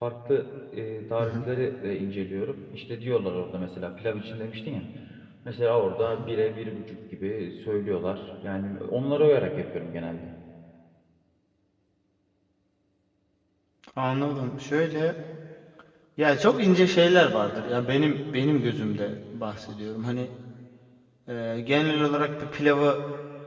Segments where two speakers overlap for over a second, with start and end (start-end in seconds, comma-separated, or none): none